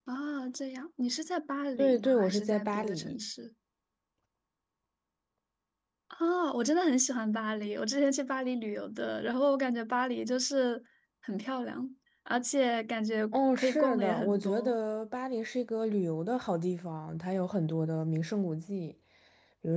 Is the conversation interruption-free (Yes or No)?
No